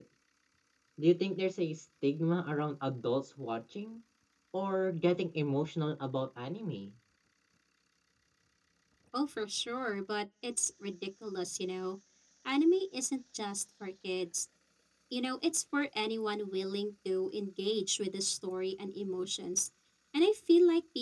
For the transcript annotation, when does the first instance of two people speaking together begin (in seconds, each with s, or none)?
none